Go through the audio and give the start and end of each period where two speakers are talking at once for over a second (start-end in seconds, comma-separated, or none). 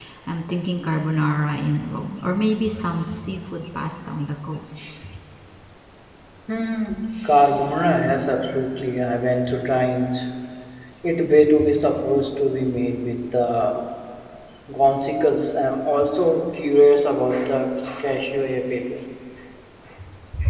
none